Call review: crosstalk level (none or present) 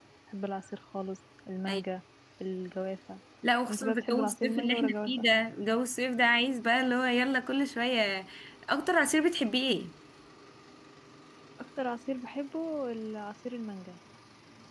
present